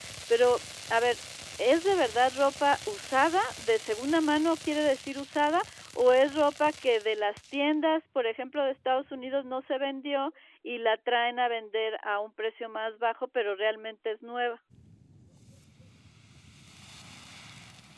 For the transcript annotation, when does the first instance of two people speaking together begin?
none

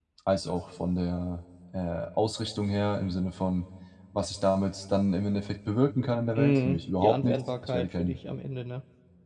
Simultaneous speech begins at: 6.3 s

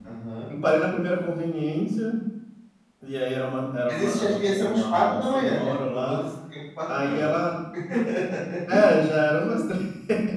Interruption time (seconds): 3.9 s

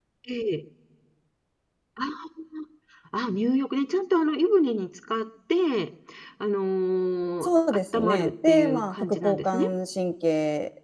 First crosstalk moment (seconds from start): 7.4 s

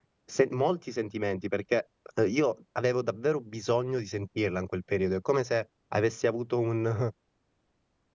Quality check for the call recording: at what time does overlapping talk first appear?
none

